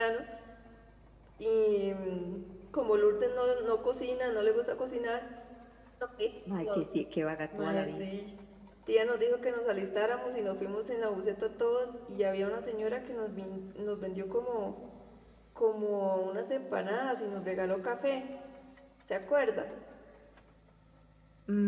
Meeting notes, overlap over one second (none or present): none